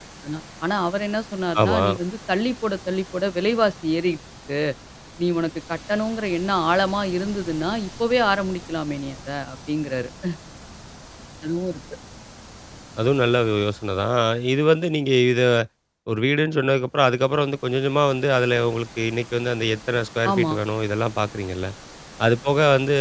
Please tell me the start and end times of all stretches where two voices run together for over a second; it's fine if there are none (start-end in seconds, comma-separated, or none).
none